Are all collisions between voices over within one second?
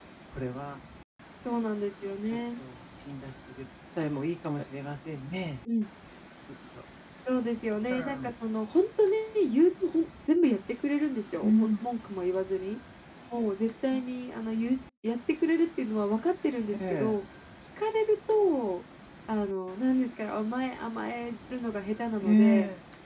Yes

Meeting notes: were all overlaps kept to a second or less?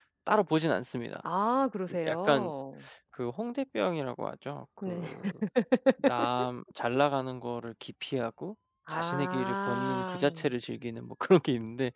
No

